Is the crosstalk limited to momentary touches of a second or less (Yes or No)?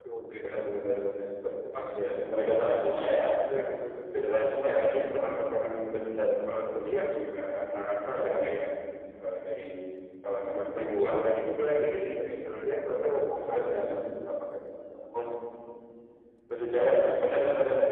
No